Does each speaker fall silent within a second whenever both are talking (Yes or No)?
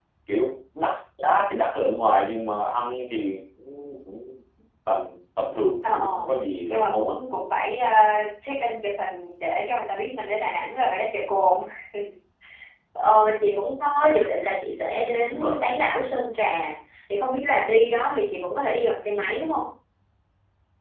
Yes